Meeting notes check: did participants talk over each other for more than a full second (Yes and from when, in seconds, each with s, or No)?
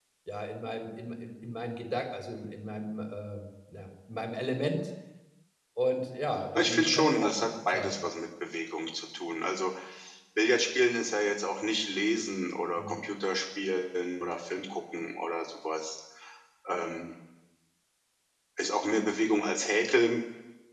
Yes, from 6.5 s